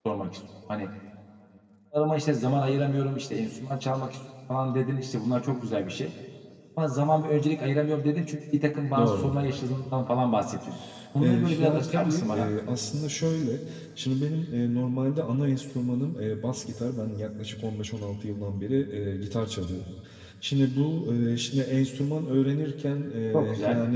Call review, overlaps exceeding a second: present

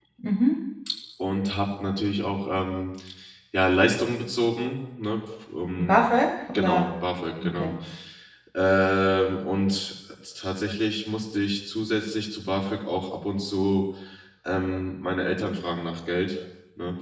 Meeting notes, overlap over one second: none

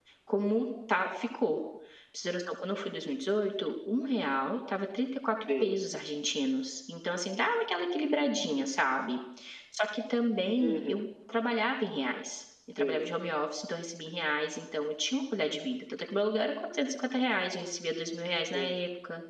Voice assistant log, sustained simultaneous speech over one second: none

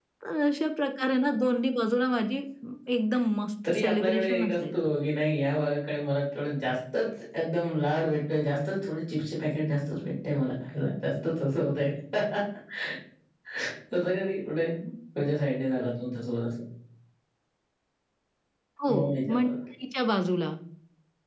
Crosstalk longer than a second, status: present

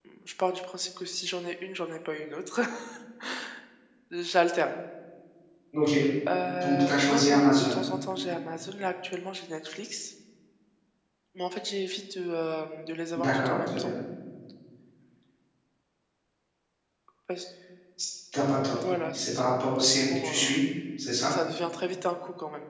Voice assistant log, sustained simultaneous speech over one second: present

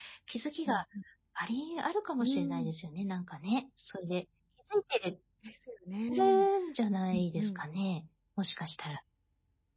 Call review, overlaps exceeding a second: none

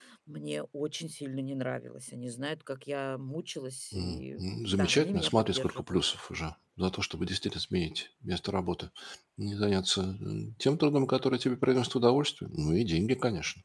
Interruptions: present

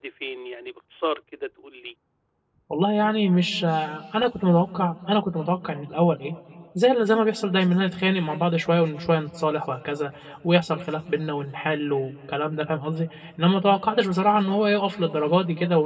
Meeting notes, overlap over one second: none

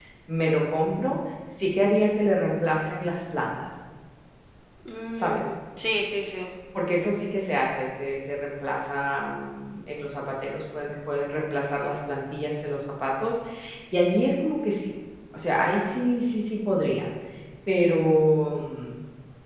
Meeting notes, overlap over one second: none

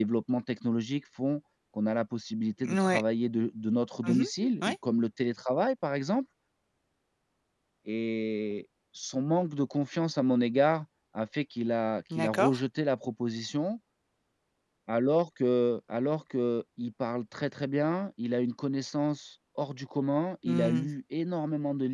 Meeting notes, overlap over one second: none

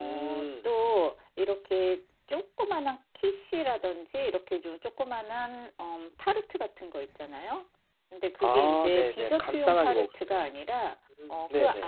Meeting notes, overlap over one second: present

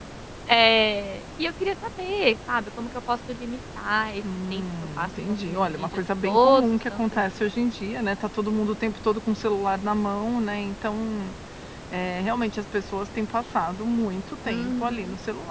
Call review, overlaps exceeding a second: present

